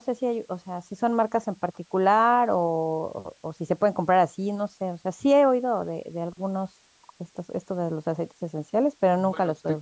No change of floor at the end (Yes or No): No